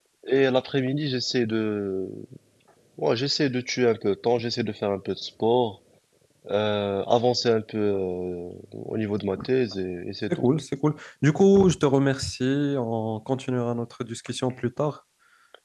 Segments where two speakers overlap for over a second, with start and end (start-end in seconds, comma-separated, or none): none